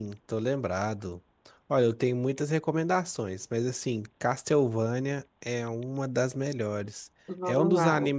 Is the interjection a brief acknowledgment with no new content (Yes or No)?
Yes